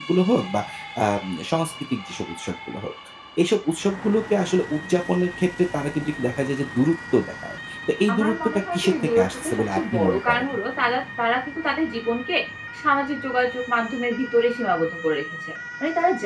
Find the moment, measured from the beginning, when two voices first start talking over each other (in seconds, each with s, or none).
8.1 s